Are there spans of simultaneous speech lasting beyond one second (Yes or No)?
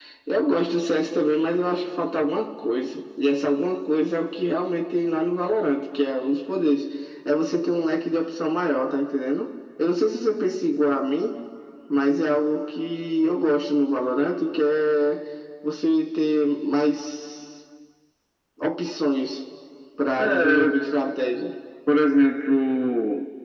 No